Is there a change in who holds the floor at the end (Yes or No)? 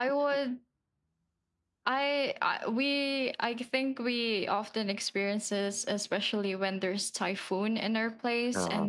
No